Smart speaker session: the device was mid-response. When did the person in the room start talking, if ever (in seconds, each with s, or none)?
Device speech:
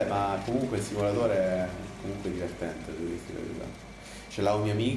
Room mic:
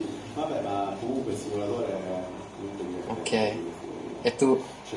3.0 s